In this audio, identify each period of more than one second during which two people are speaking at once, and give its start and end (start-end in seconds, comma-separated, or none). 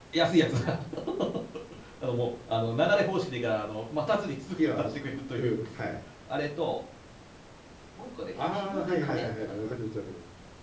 8.4-9.7